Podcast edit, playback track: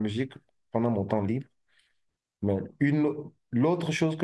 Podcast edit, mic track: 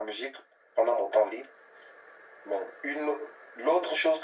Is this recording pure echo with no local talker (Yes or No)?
Yes